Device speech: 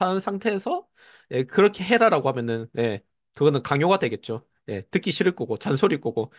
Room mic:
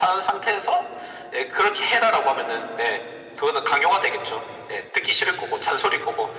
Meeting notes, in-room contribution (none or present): none